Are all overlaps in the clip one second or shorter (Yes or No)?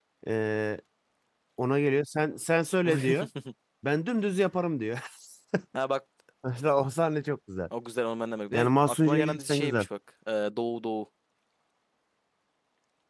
No